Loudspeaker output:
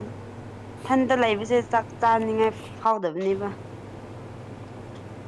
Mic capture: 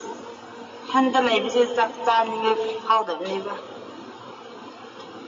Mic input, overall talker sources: echo only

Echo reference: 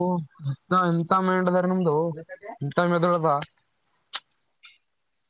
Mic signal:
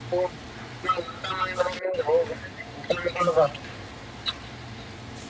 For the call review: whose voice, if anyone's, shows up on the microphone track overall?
echo only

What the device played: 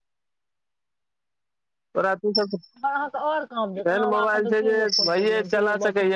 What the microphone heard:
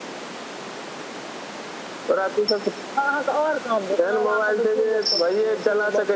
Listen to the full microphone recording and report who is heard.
echo only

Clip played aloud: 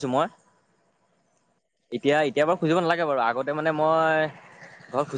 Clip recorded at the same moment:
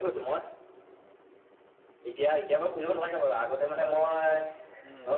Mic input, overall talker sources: both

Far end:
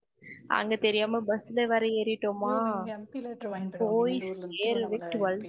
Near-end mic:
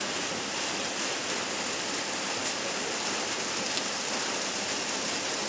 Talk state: neither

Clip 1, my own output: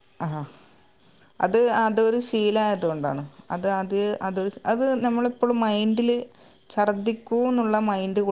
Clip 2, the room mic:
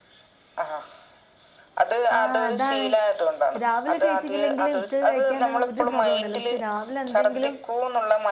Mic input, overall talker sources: both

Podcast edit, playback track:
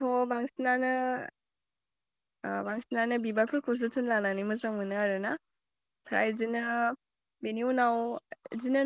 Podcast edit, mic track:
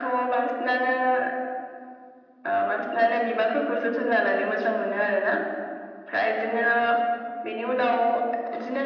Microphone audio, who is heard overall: echo only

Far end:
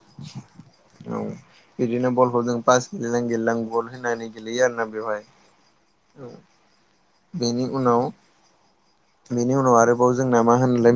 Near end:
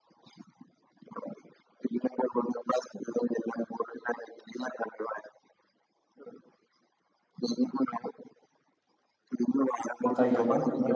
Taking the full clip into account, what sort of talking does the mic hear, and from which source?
both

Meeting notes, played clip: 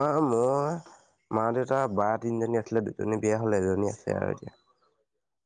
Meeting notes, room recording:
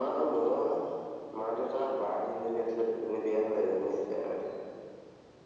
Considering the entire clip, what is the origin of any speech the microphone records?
echo only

